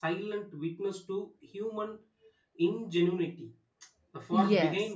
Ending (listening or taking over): listening